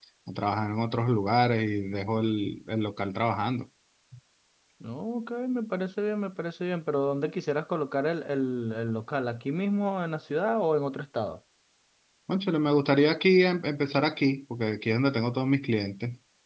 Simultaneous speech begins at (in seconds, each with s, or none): none